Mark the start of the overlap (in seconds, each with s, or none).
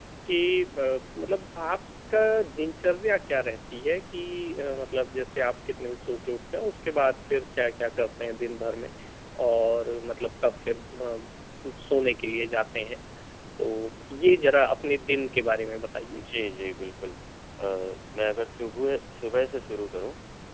none